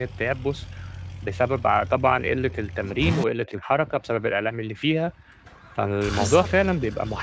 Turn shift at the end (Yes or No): No